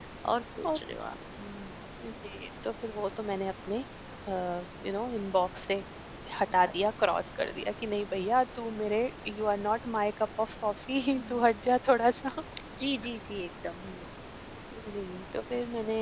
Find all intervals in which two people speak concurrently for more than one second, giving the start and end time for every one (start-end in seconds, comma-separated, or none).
none